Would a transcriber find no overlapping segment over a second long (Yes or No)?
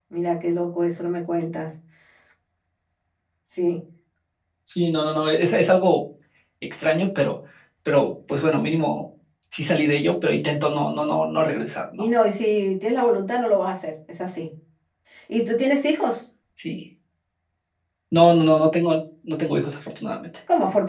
Yes